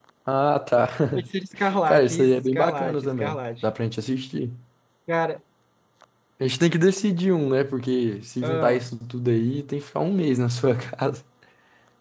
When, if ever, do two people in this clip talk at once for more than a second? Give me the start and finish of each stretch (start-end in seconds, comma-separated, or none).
1.9-3.6